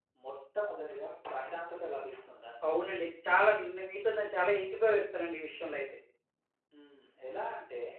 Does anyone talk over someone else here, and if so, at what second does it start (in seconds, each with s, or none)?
none